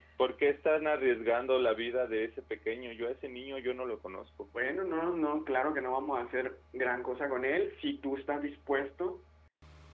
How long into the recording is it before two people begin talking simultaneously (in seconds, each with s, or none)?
none